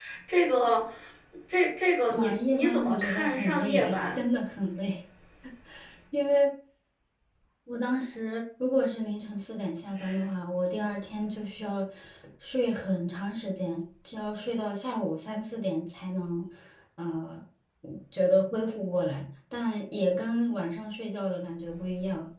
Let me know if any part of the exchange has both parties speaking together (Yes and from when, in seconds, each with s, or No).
Yes, from 2.1 s